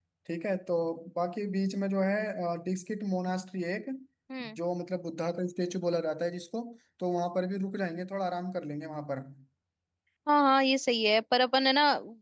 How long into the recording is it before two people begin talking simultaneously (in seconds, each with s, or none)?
none